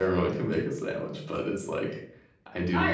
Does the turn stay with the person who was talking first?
No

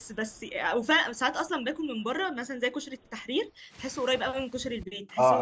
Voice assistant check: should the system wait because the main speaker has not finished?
No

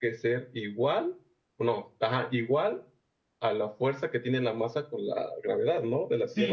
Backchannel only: No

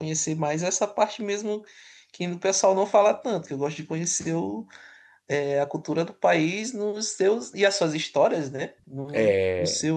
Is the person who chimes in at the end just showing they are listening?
Yes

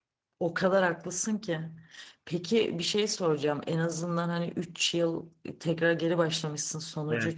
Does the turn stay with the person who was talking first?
Yes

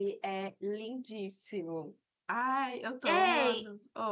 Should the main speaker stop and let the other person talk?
Yes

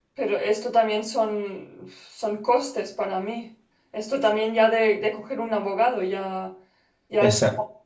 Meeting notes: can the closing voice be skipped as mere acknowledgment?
Yes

